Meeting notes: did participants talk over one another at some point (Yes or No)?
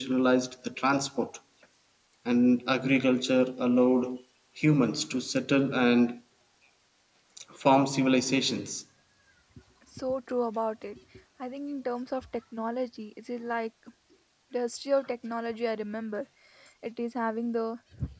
No